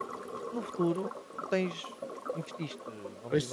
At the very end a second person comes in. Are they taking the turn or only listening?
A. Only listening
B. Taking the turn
A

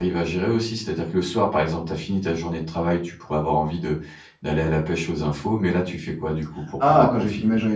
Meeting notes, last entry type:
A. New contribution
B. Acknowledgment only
A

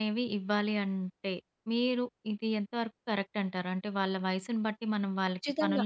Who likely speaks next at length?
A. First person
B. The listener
B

